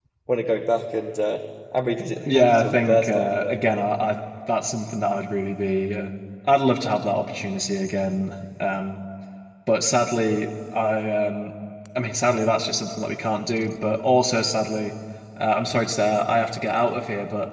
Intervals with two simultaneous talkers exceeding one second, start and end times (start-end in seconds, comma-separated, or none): 2.3-3.6